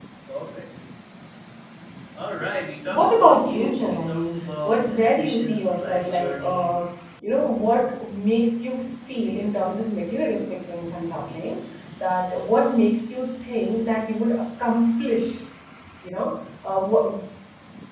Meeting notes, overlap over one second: present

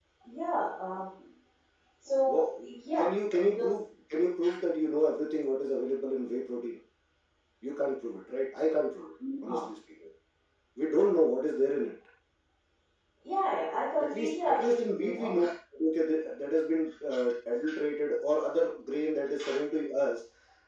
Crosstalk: present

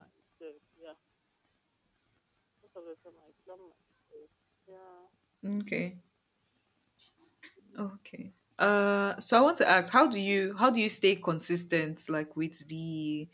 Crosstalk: none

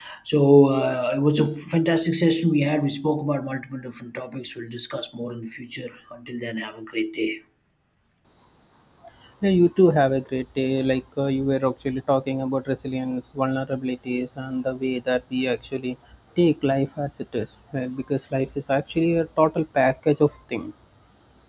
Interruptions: none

